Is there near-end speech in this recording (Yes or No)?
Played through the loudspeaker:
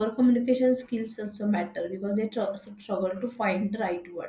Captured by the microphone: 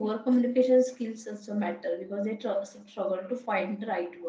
No